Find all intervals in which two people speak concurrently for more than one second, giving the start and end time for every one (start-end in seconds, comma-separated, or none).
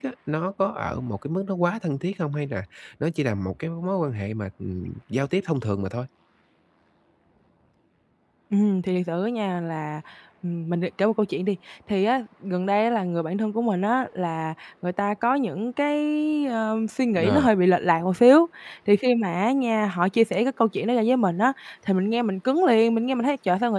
none